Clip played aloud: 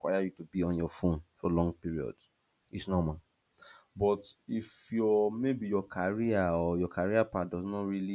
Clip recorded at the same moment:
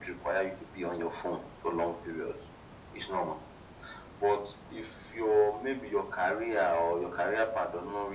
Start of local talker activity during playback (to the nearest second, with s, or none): none